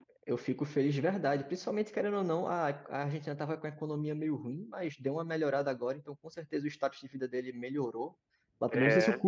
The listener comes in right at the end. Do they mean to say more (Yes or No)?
No